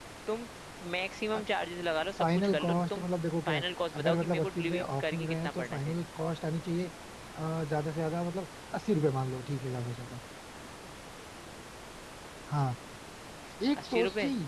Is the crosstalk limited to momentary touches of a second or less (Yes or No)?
No